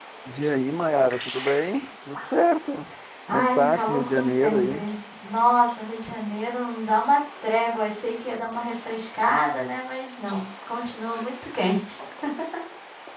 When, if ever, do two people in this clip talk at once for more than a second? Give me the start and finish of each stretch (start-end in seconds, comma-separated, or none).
3.3-4.8